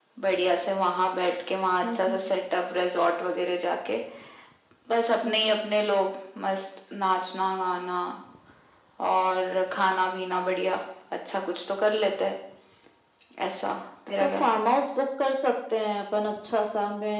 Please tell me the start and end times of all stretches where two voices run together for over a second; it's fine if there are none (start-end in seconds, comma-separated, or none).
none